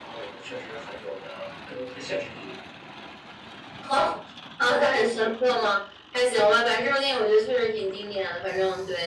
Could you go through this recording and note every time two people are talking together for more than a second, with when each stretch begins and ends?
none

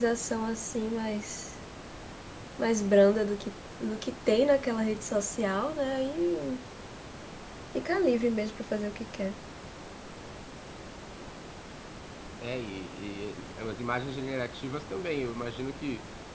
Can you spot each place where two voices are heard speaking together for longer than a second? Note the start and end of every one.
none

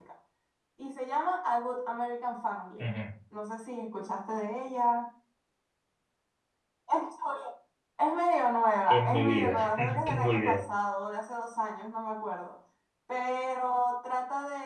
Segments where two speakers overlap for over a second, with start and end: 8.9-10.6

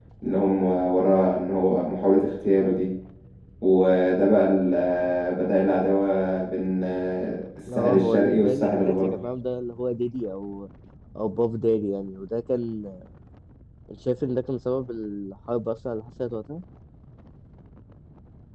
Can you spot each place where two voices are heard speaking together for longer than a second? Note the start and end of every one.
7.7-9.2

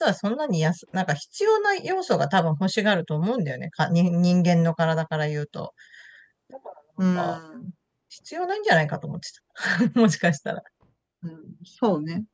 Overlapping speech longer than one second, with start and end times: none

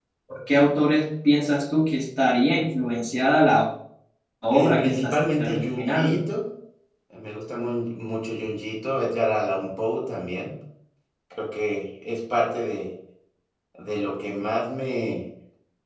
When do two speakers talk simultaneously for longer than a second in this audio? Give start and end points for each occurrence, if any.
4.5-6.2

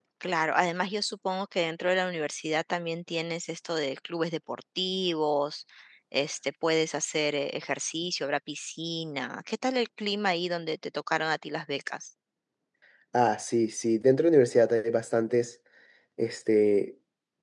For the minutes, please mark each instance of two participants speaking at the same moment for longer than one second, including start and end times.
none

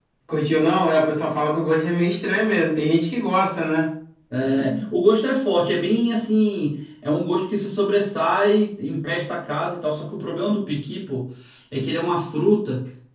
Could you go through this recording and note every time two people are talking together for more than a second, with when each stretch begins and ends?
none

